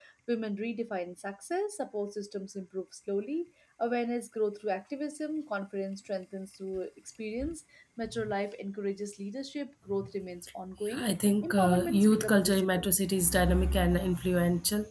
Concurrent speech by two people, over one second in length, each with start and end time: 11.4-12.9

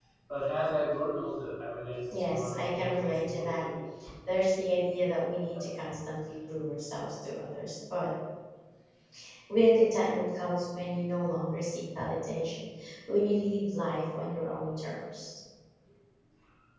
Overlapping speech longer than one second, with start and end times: 2.1-3.7

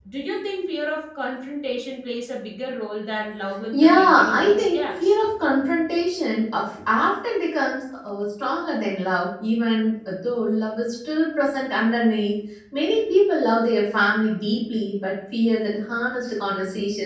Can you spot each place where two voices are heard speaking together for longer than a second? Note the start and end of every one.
3.7-5.1

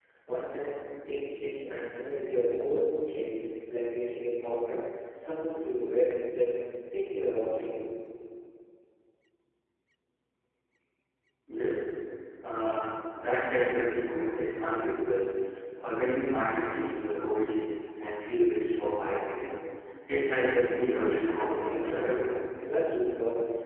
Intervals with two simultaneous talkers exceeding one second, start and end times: 20.8-22.3

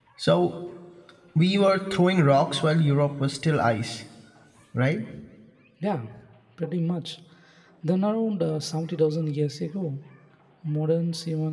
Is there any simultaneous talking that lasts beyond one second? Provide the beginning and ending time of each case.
none

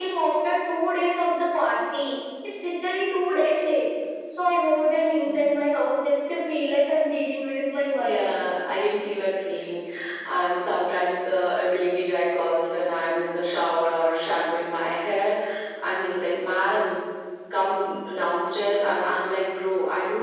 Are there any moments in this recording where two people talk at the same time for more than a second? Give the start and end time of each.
none

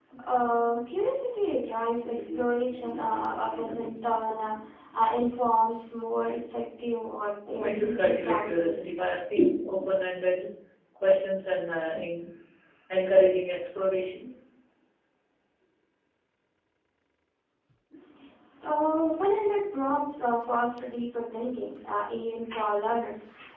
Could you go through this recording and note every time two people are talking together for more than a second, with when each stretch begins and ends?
7.6-8.8

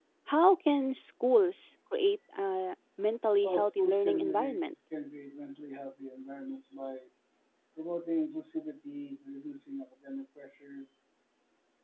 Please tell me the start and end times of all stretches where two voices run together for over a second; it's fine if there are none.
3.4-4.6

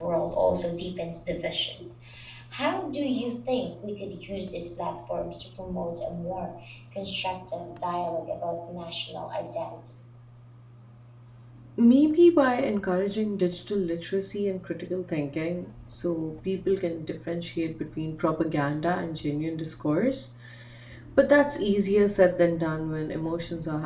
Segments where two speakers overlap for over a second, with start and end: none

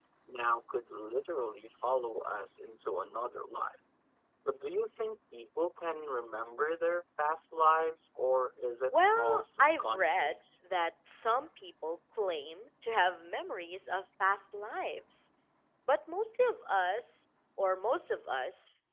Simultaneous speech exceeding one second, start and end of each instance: 8.9-10.4

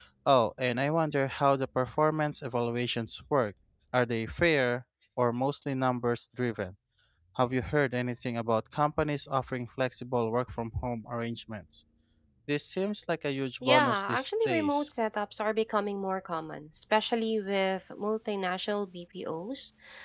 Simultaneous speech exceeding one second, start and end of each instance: 13.6-14.9

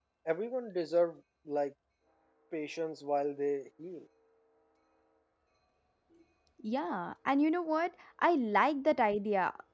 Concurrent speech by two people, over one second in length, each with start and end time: none

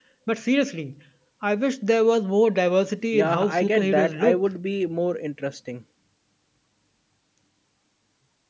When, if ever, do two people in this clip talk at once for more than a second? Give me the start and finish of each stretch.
3.1-4.4

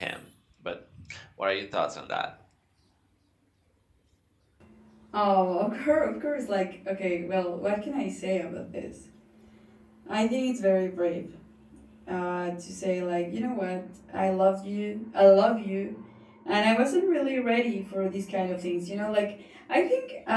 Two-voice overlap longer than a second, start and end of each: none

